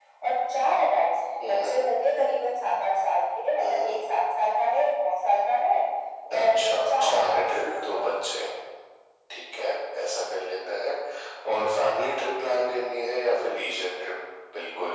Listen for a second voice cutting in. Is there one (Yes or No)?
Yes